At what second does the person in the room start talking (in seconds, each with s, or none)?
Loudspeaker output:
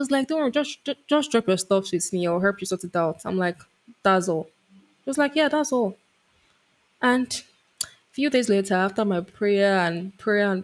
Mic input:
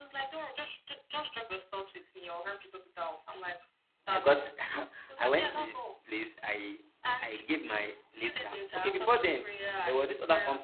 4.1 s